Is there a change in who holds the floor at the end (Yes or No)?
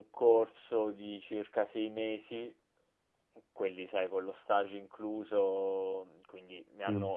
No